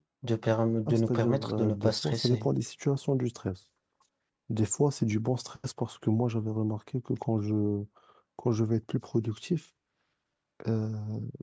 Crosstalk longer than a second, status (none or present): present